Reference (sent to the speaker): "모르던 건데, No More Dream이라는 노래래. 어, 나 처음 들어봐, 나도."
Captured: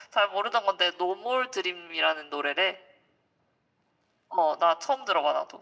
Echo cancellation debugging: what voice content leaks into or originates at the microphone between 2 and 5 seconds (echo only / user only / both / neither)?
echo only